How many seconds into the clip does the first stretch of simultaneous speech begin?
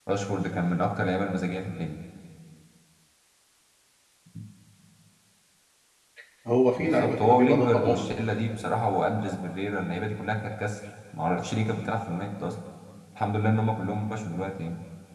6.8 s

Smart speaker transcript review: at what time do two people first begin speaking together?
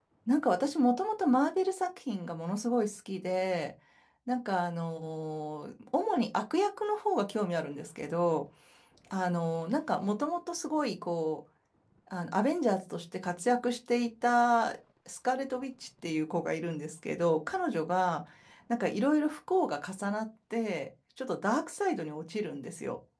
none

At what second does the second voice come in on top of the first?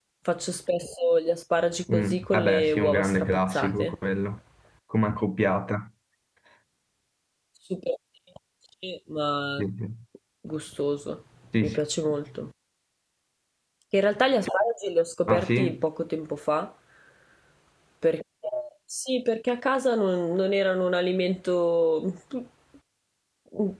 1.9 s

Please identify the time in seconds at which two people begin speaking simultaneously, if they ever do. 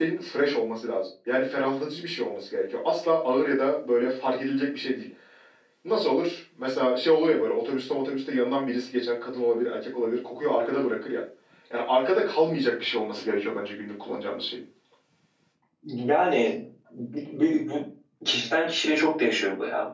none

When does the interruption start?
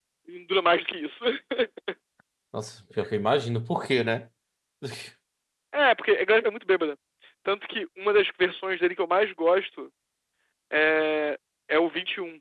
none

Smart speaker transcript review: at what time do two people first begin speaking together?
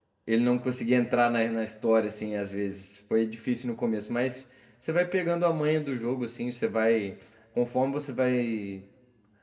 none

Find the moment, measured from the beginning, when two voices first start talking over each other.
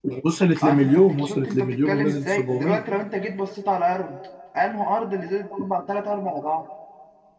0.6 s

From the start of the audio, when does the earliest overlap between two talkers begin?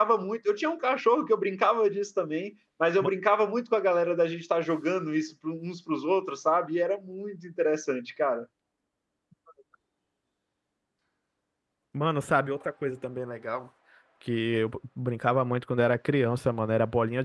none

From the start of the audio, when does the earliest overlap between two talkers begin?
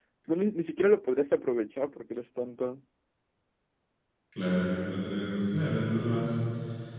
none

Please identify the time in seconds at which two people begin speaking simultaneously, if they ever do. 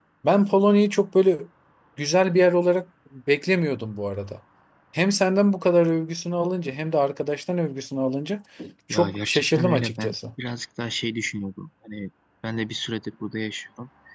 8.9 s

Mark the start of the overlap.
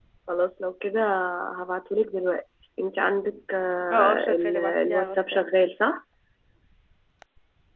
3.9 s

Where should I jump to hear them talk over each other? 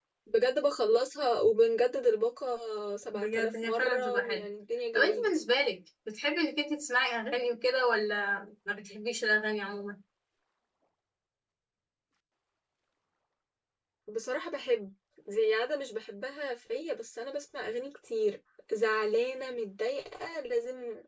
3.1 s

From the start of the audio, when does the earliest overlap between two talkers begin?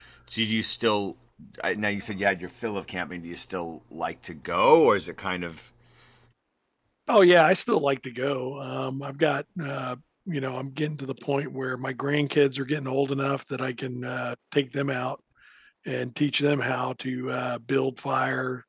none

